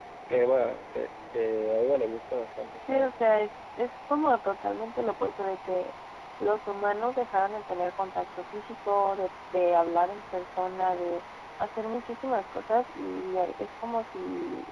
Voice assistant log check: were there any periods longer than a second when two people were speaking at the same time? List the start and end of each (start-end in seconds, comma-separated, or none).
none